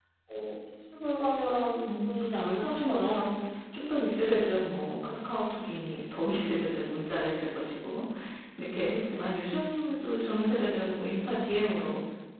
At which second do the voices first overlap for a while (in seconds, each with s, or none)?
1.8 s